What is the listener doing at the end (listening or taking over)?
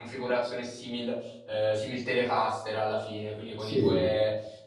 listening